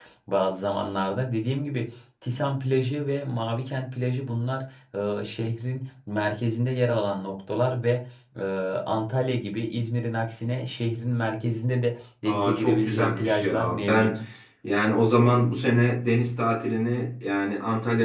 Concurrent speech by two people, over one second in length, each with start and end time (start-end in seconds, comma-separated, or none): 12.2-14.1